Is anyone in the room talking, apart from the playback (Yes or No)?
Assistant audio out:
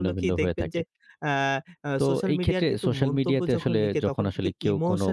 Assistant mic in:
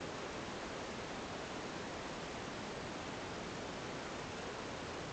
No